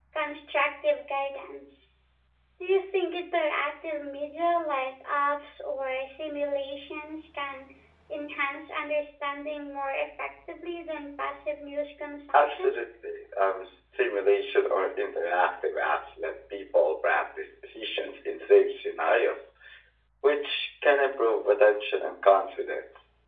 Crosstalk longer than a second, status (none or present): none